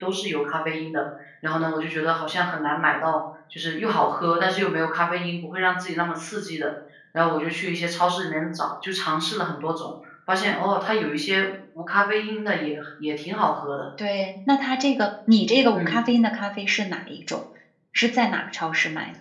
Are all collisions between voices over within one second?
Yes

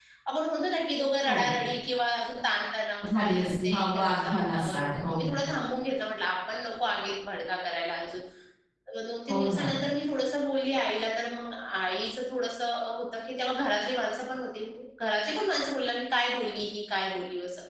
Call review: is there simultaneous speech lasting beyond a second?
Yes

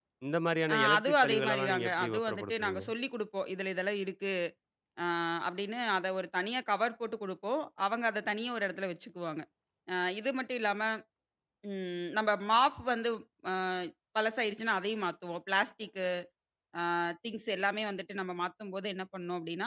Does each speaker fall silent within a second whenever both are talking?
No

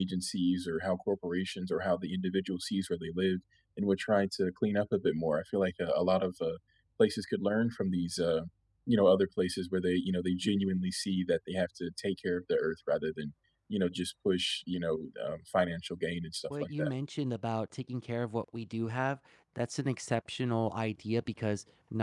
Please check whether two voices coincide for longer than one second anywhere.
No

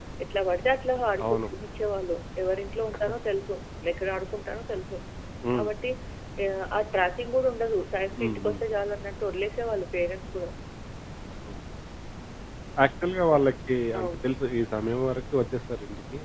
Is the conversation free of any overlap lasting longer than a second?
Yes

